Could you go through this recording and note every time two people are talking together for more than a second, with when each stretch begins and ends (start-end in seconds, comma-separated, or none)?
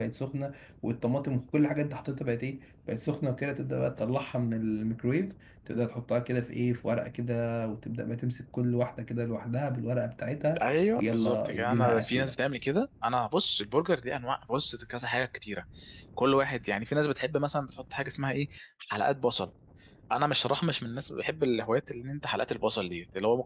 11.0-12.3